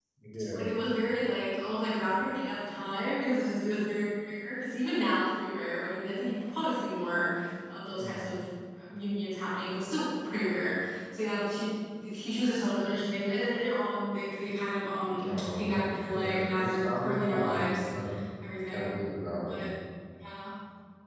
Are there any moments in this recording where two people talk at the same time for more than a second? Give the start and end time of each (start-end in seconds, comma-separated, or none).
16.1-18.0